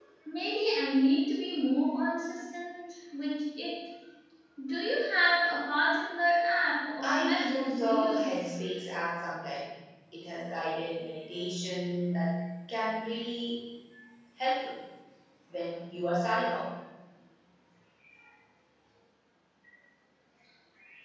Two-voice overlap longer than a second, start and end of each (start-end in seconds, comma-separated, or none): 7.0-8.5